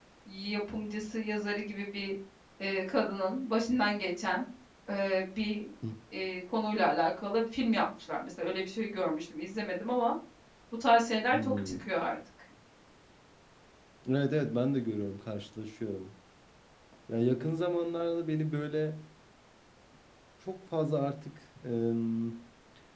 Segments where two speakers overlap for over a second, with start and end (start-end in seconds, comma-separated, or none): none